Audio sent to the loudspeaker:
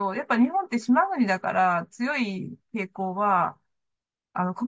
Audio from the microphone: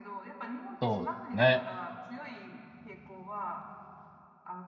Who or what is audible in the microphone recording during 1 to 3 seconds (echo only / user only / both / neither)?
both